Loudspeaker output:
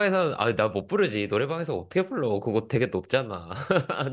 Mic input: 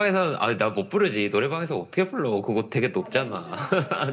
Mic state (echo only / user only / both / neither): both